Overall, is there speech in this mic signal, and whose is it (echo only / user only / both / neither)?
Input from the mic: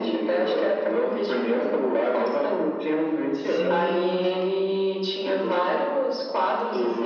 both